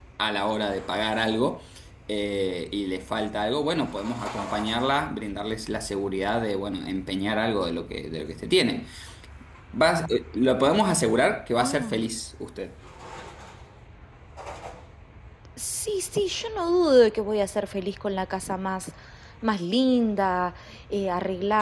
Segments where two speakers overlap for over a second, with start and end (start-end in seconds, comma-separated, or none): none